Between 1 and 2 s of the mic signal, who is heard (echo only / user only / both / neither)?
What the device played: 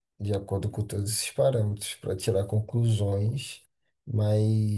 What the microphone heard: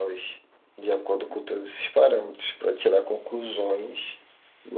echo only